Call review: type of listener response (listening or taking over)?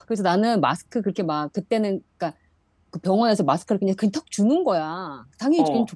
listening